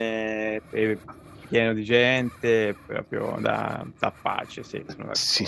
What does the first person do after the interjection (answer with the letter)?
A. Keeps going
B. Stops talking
B